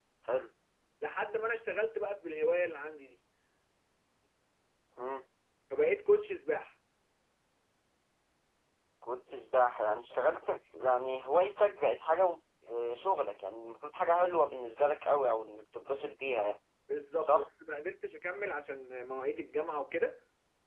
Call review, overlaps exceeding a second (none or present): none